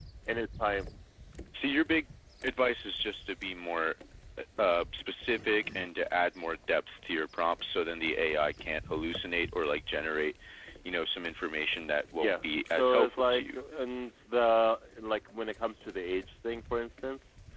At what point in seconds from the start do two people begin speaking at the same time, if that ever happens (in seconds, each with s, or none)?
12.2 s